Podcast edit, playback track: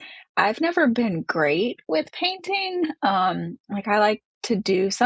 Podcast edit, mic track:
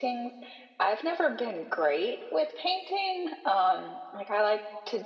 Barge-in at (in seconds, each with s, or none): none